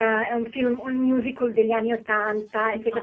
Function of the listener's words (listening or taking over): listening